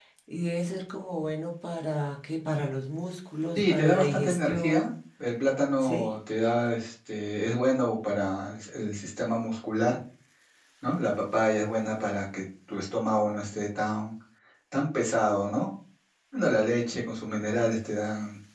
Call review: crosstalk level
present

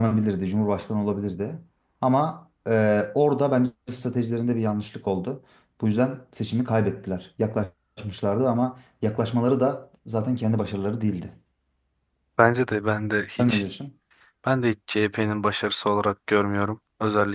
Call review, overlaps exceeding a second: none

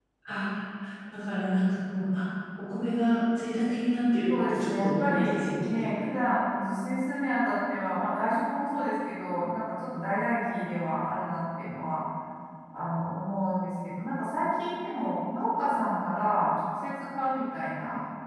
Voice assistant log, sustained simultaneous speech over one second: present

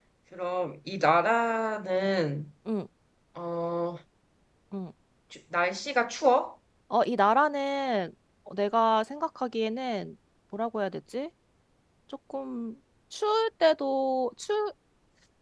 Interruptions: none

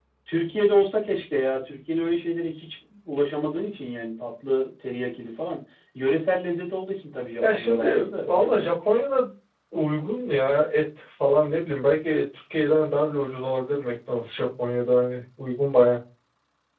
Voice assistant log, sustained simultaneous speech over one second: present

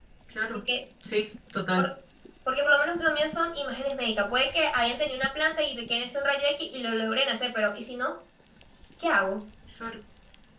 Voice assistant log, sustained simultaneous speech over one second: none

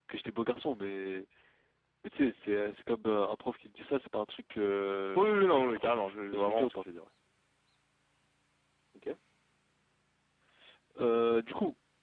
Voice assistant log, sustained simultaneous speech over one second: present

